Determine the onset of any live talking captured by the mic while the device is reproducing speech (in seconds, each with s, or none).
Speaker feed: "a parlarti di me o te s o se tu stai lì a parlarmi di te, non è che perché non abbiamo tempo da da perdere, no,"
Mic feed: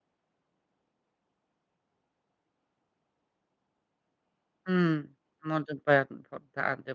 4.7 s